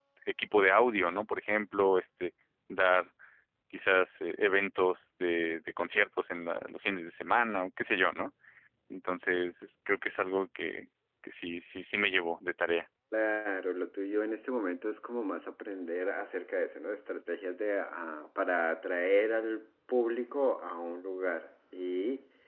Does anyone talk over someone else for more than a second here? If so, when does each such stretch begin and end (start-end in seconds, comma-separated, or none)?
none